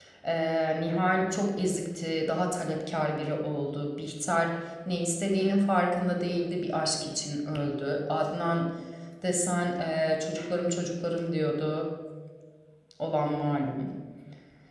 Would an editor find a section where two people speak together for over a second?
No

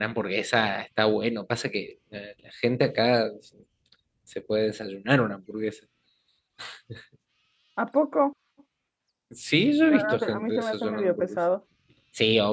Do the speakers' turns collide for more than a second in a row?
Yes, from 9.9 s

